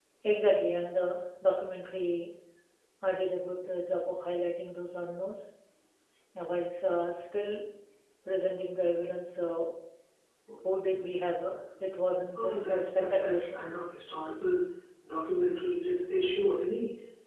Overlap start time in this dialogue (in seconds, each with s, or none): 12.4 s